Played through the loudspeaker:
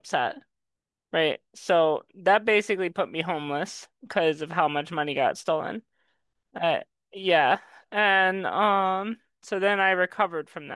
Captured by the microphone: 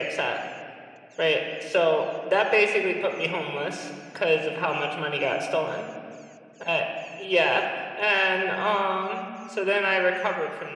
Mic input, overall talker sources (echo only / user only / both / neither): echo only